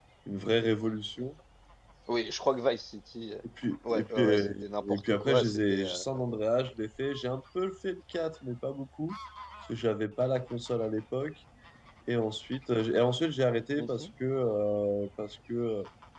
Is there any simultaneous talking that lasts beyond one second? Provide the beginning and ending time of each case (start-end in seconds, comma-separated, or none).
3.9-6.0